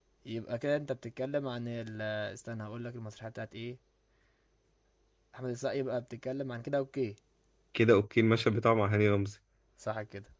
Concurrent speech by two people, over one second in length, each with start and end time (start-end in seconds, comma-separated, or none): none